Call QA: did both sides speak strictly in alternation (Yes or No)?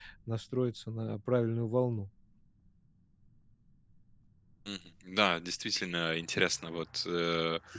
Yes